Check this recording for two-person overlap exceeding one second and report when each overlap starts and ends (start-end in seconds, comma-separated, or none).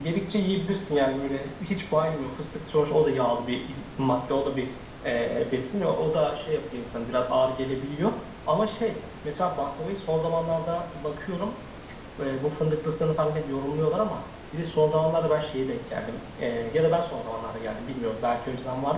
none